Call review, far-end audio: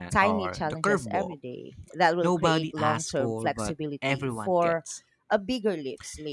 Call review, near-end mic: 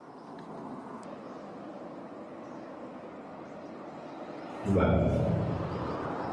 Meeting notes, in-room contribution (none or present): present